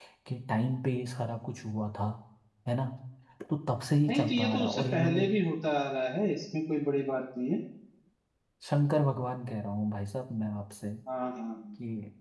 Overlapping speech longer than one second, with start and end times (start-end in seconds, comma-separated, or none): 4.1-5.3